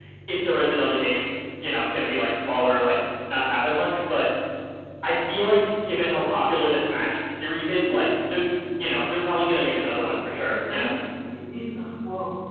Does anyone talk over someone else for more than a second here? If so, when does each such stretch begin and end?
none

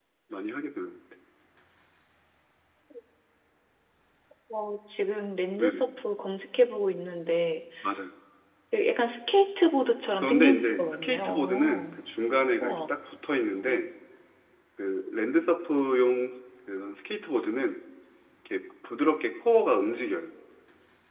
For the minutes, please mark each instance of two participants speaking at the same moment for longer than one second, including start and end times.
10.2-11.9

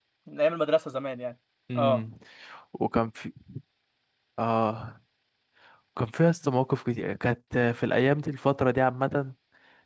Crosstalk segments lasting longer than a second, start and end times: none

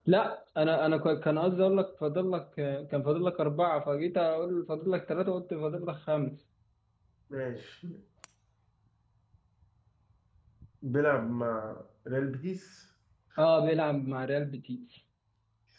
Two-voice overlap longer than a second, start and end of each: none

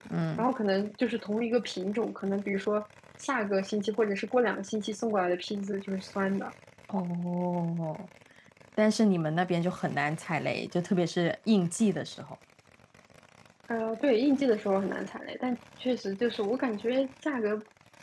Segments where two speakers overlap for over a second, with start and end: none

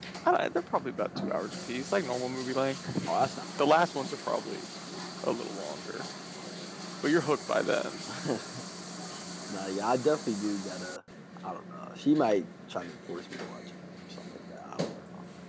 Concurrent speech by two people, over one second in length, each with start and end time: none

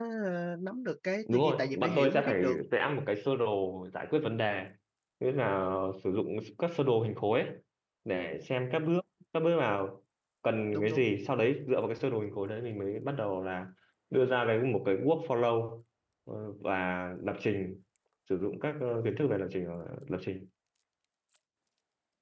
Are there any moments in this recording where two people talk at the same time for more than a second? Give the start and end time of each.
1.3-2.6

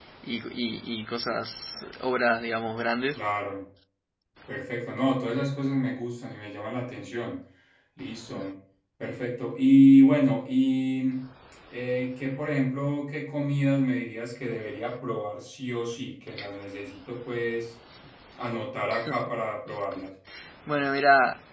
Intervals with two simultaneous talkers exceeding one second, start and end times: none

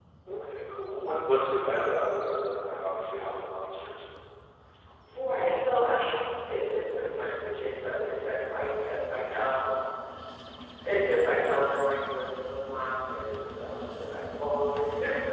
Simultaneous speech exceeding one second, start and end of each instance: none

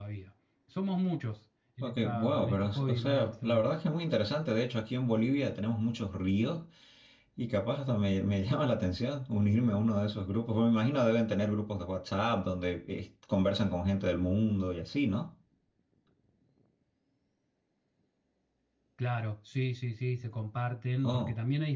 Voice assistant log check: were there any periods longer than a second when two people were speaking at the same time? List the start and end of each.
1.8-3.7

